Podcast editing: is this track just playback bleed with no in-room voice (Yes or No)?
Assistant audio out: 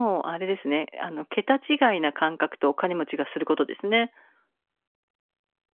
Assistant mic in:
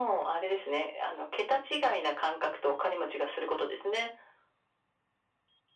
Yes